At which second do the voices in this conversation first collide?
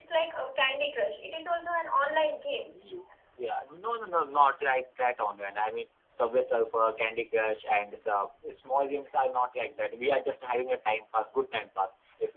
none

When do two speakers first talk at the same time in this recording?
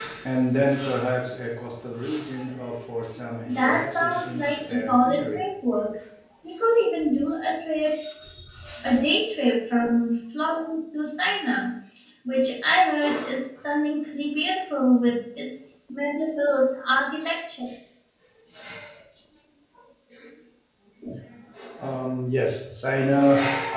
3.4 s

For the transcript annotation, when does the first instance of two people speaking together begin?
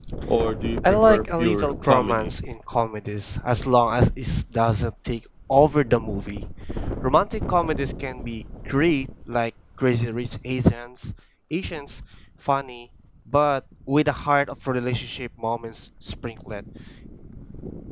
0.8 s

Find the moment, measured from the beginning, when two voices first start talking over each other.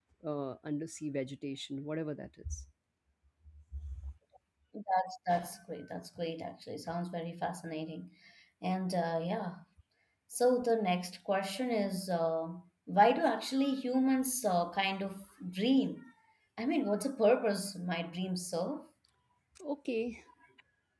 none

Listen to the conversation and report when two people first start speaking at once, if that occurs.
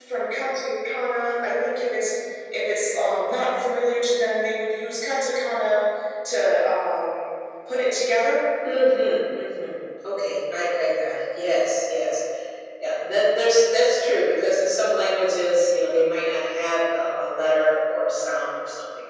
none

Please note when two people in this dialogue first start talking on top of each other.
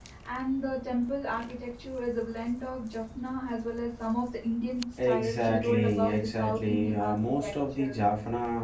5.0 s

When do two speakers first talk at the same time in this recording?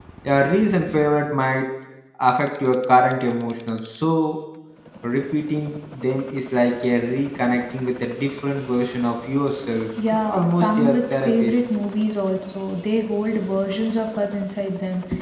10.2 s

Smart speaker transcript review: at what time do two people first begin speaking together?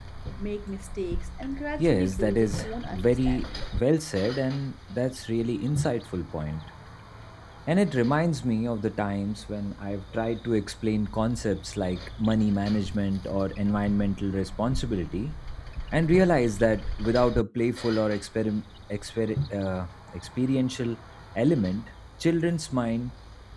1.8 s

